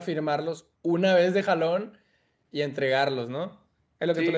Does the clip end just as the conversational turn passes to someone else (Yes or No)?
Yes